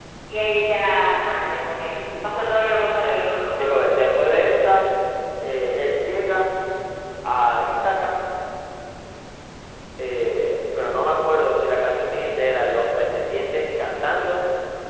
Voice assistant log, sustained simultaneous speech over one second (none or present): none